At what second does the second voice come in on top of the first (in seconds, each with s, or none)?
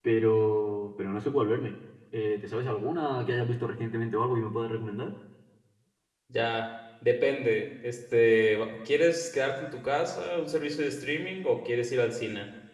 none